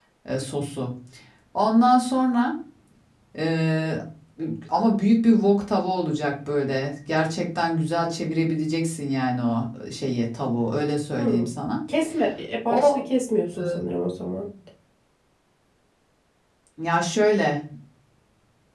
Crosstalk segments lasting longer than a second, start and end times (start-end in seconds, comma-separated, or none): none